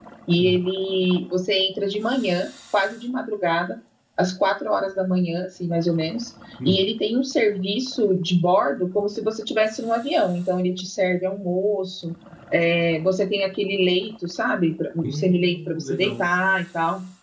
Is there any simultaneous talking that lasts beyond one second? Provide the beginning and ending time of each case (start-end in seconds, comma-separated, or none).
15.0-16.2